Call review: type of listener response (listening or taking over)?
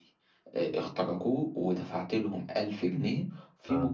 listening